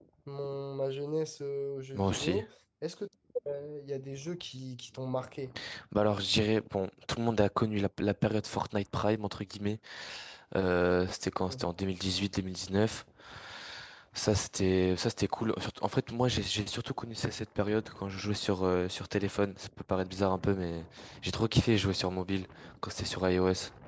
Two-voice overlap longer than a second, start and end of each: none

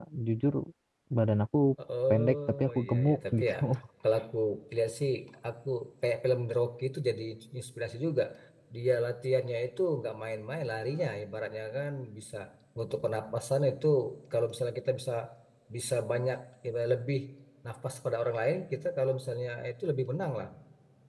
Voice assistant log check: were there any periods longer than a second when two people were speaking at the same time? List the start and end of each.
2.1-3.6

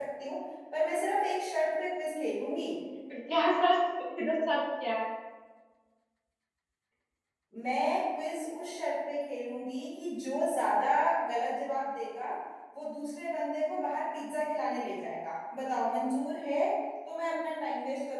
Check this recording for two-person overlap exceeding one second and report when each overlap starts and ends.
none

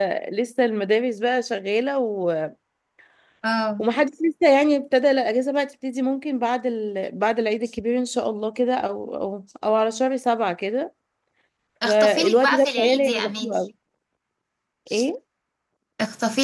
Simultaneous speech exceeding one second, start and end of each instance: 11.8-13.6

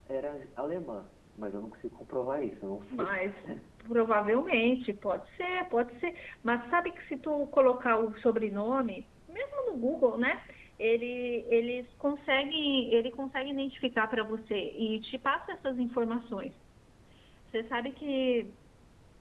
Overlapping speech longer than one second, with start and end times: none

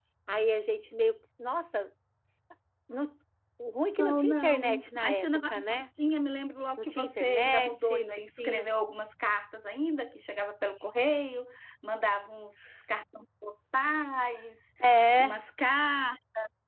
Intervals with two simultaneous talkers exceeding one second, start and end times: 4.0-5.9, 6.8-8.7

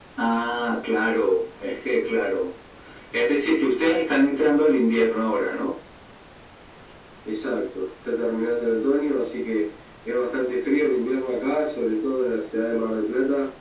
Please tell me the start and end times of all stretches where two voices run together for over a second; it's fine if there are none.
none

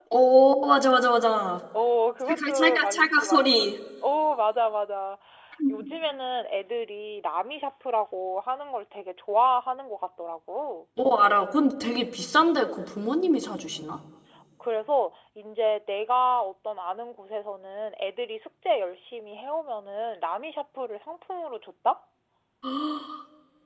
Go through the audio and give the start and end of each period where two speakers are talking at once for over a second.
2.3-3.5

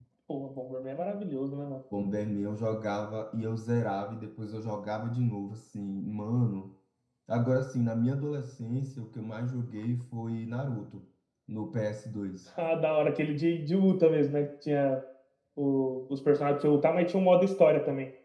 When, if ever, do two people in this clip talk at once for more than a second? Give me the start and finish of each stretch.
none

